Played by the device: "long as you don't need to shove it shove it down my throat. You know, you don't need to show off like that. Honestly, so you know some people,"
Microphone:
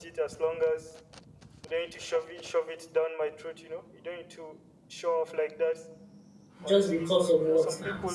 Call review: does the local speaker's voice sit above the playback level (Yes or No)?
Yes